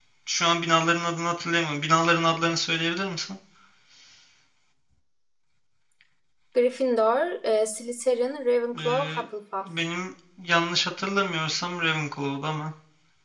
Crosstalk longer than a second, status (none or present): none